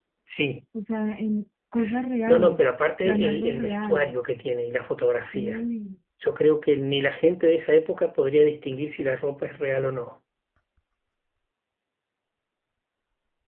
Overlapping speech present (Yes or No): Yes